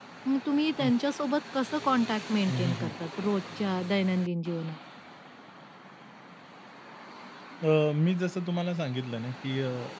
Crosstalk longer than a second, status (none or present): none